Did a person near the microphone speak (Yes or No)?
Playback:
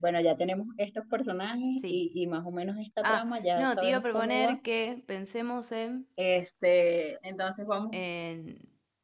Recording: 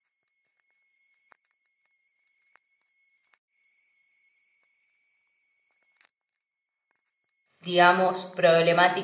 Yes